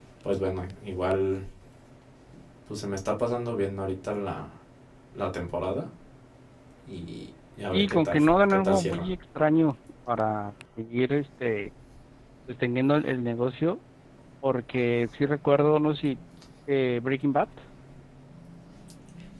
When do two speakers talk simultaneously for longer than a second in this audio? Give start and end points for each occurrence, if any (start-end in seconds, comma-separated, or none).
7.7-9.1